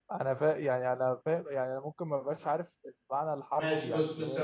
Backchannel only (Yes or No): No